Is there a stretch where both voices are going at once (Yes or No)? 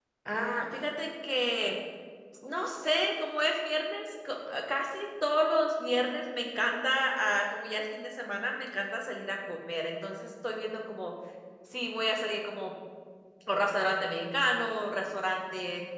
No